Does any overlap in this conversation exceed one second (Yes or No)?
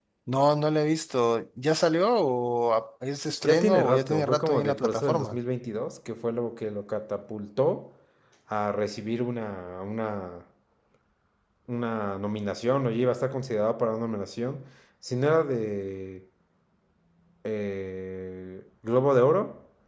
Yes